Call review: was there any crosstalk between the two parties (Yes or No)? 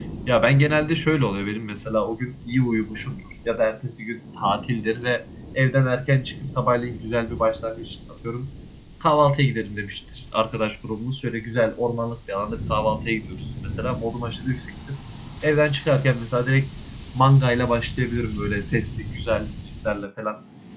No